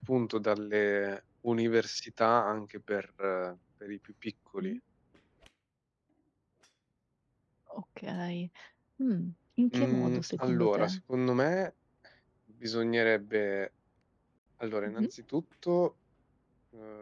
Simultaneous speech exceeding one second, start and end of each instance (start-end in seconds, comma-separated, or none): 9.7-11.0